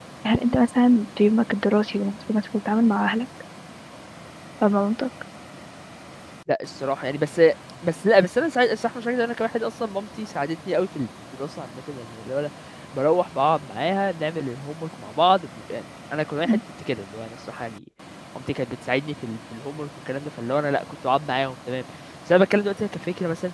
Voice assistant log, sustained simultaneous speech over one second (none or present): none